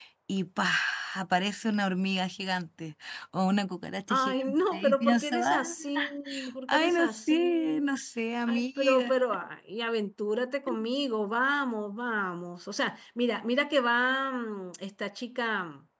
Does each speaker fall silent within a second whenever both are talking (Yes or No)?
No